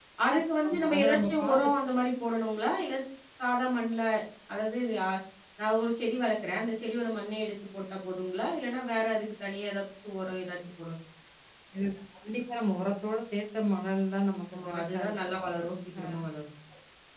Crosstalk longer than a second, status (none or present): present